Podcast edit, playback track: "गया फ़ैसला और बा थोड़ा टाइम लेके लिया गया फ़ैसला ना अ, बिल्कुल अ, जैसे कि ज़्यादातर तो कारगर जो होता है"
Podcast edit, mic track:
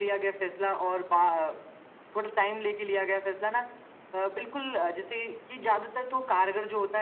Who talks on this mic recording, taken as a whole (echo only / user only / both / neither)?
echo only